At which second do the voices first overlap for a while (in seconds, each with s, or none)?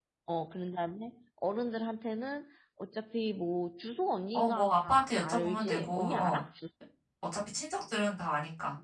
4.3 s